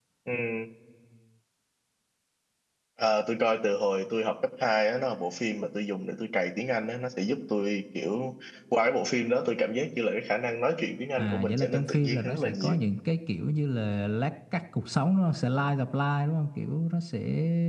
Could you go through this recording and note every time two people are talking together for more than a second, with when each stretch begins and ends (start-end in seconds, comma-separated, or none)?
11.2-12.8